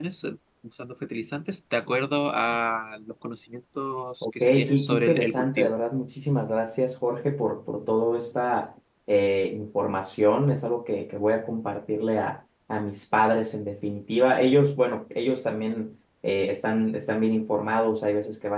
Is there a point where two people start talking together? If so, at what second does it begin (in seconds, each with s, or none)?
4.2 s